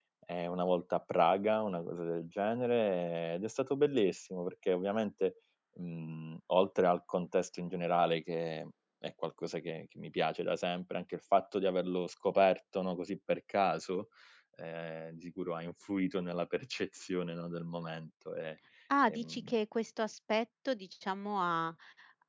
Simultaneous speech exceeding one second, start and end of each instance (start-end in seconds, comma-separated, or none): none